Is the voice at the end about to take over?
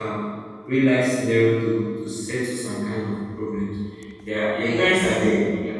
No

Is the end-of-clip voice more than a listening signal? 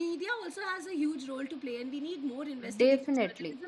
No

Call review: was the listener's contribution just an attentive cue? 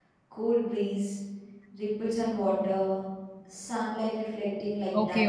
No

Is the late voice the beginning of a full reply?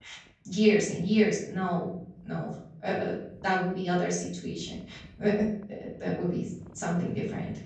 No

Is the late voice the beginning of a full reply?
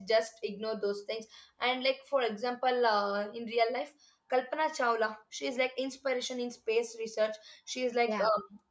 No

